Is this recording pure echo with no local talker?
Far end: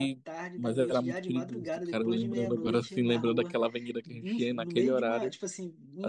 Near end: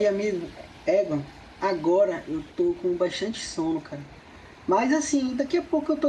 No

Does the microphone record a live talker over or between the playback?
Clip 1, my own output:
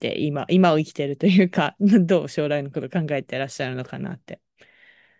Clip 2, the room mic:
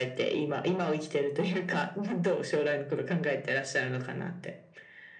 No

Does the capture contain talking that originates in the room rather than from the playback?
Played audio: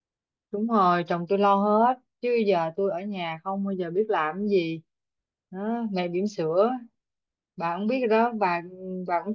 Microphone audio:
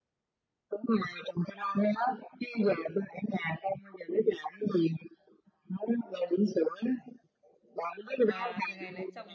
Yes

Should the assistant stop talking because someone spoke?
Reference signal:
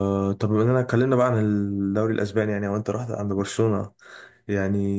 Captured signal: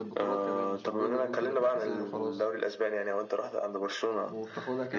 Yes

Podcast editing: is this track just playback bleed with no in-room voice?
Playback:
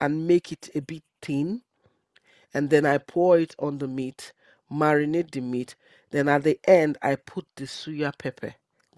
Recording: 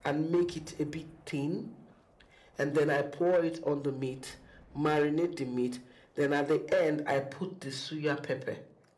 Yes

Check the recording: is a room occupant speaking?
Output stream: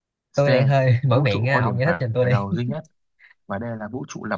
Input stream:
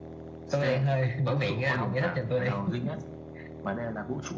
No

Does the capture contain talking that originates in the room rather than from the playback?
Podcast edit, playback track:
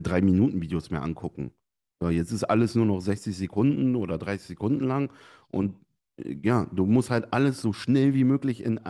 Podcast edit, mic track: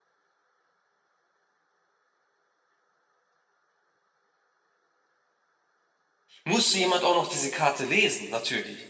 Yes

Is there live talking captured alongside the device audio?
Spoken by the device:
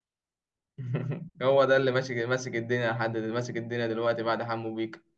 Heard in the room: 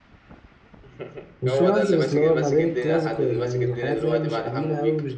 Yes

